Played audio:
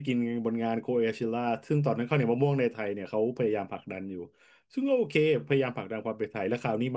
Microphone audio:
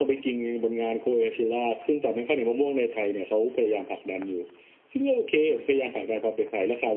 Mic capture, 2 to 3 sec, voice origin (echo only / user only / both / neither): echo only